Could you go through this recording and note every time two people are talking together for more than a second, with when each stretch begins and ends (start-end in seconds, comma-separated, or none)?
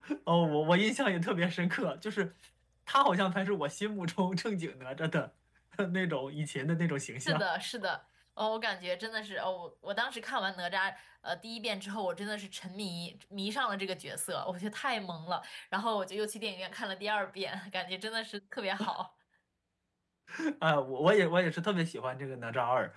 none